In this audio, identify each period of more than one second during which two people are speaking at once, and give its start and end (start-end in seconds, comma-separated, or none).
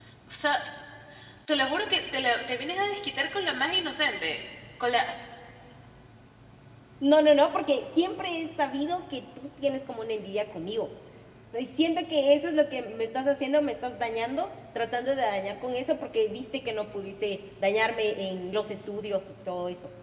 none